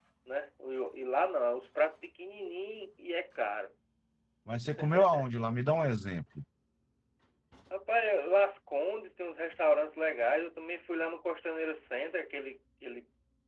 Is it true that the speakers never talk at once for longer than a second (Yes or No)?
Yes